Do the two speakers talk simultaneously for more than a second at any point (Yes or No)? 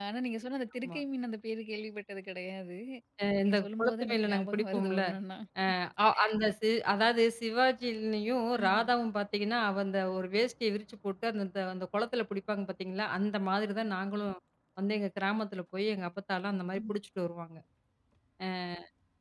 Yes